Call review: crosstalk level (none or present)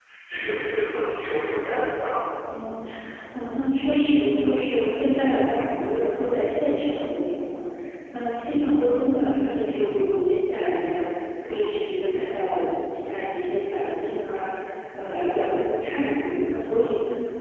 none